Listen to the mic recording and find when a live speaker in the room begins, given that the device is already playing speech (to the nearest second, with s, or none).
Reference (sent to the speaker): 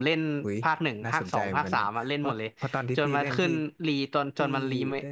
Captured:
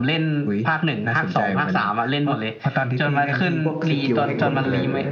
4 s